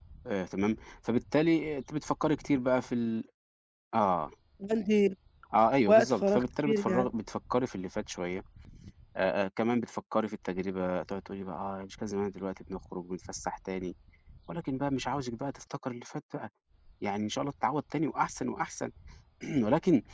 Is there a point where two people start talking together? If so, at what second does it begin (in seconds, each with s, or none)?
5.9 s